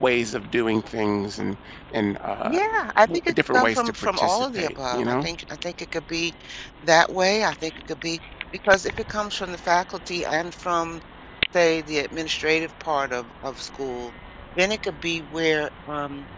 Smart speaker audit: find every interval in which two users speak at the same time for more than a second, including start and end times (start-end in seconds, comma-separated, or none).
3.1-5.3